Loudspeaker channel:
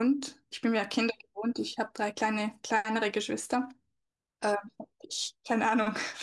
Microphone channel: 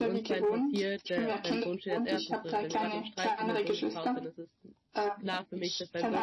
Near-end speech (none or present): present